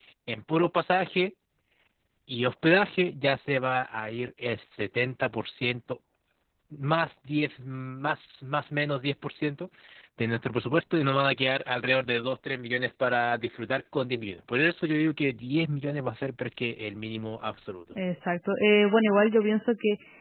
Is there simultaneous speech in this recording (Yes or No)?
No